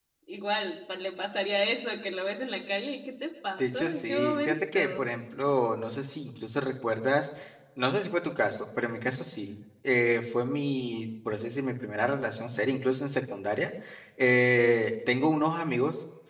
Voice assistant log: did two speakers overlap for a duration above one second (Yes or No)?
Yes